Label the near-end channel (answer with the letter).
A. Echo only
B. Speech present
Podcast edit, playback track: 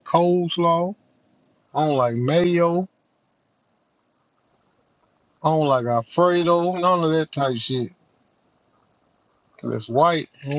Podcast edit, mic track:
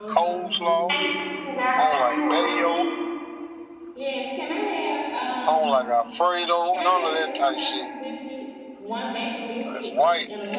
B